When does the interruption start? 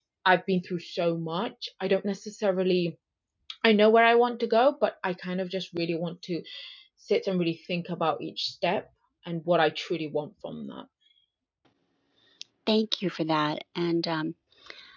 none

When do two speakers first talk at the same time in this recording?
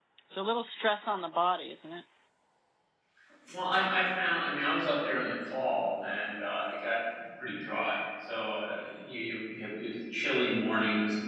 none

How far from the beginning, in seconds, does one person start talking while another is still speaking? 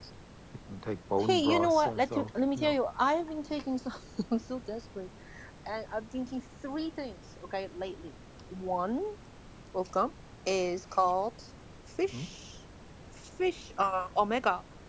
1.2 s

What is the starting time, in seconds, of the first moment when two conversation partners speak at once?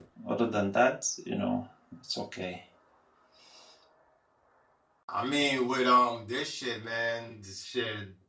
none

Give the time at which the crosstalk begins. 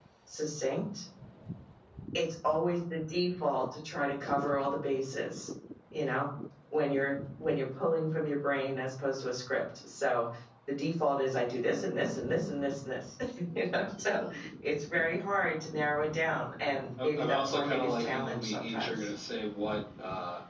17.0 s

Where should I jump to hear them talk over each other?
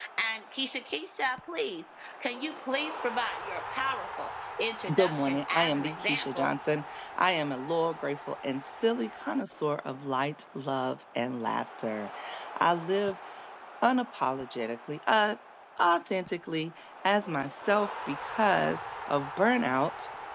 4.9 s

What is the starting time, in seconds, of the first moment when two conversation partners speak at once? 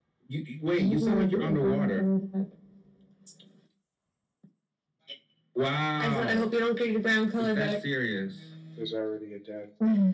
0.8 s

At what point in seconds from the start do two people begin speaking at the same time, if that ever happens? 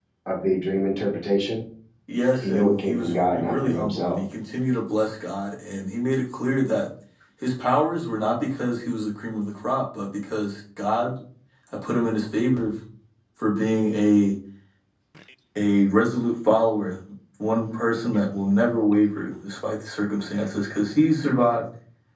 2.4 s

